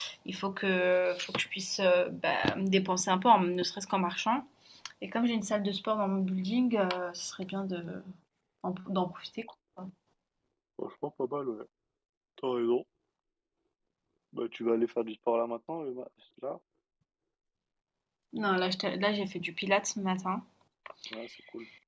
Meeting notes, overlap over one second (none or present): none